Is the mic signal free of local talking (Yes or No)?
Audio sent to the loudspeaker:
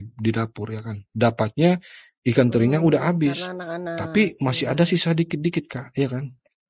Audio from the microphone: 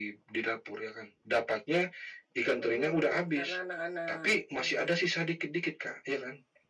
Yes